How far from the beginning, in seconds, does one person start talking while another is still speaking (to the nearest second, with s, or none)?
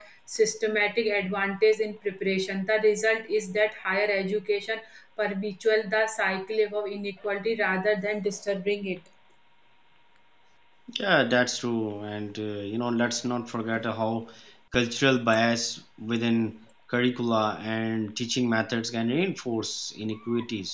none